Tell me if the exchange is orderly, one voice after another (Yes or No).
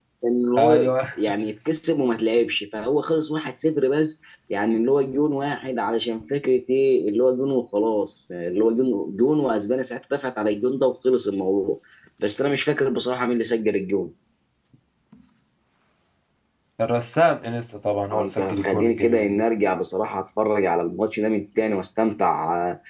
No